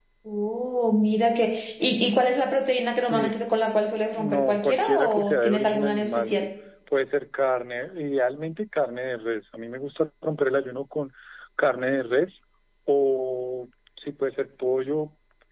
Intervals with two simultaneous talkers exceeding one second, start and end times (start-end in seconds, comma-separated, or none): 4.2-6.5